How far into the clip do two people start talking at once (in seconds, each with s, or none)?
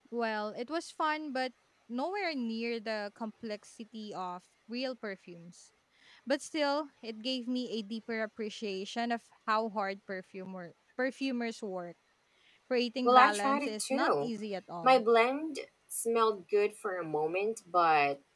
13.1 s